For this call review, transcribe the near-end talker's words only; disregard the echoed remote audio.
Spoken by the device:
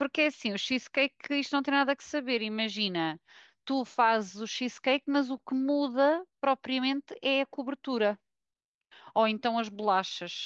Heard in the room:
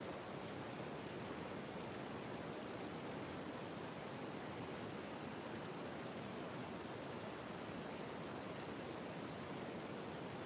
none

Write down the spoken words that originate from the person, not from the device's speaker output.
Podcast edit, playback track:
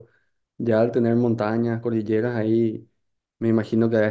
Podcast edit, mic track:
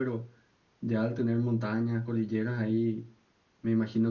none

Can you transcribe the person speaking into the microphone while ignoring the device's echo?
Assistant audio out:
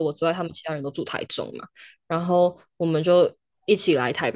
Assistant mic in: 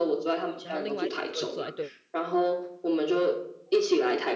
然后另外一组就会坐在对

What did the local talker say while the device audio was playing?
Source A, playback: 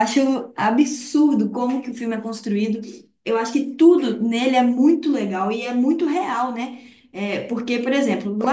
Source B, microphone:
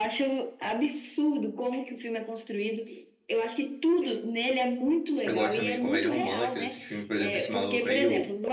Eu gosto também de comédia romântica, desses filmes, por exemplo, esse maluco aí, o,

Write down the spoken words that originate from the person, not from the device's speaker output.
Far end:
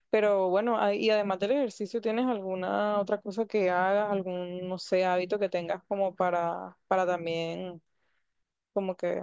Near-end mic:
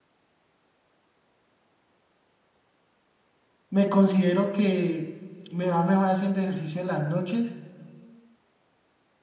me considero que me va mejor haciendo ejercicio en las noches

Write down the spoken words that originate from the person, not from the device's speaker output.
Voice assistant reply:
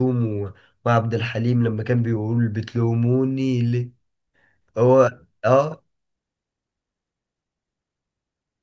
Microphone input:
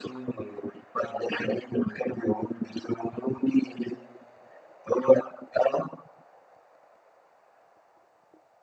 none

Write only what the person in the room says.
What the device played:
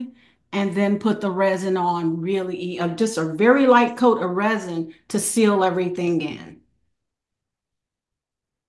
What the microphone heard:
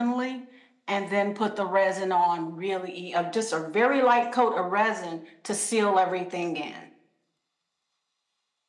none

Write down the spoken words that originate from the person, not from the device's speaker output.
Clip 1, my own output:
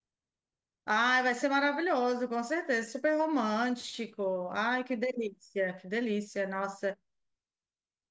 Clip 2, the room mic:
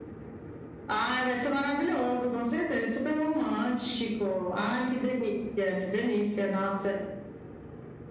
none

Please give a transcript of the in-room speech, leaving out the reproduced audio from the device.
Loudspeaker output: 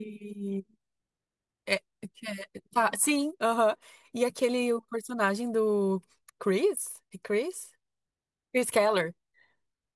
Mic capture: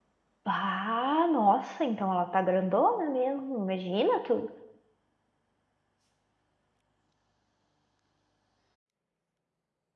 Ah, nossa, então ela tá grandona mesmo. Imagina tu.

